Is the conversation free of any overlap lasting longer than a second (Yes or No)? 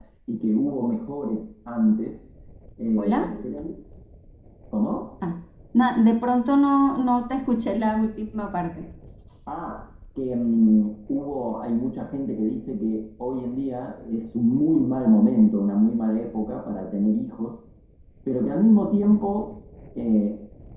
Yes